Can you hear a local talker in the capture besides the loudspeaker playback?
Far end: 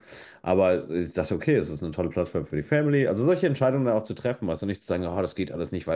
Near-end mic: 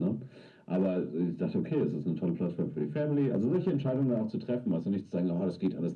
No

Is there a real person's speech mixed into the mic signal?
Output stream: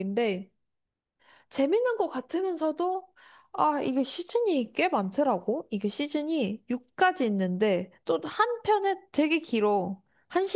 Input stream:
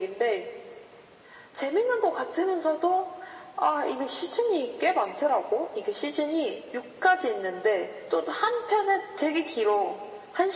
No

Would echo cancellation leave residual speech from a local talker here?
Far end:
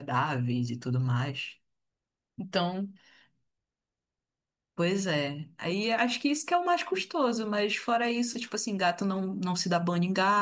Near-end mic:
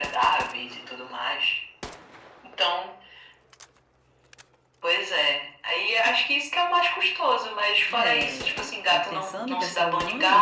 Yes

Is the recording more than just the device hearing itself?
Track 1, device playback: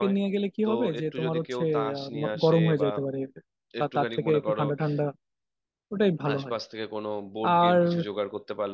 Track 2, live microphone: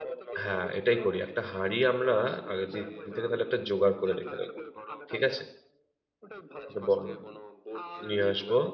Yes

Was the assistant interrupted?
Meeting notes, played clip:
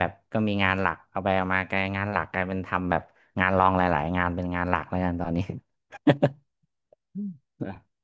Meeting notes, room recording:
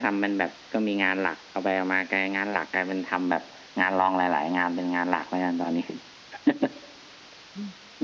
No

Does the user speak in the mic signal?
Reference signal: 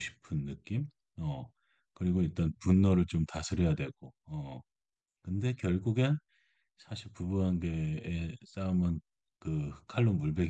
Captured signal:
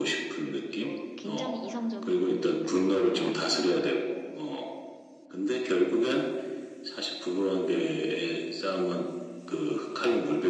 Yes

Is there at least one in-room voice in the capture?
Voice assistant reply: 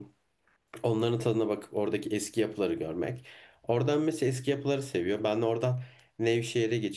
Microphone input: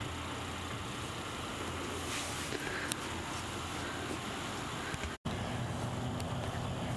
No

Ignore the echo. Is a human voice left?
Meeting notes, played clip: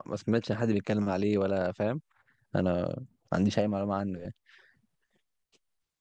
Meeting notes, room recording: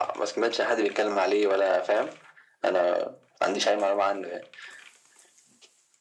No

